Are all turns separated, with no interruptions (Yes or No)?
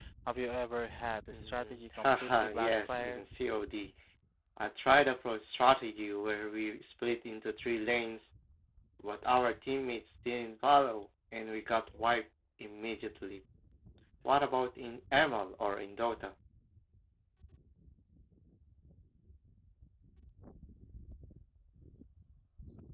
No